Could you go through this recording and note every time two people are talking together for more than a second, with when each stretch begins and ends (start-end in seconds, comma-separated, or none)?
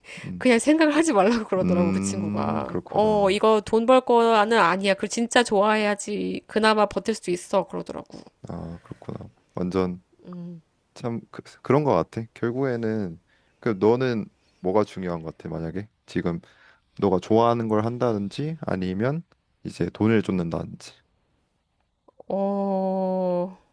1.6-3.3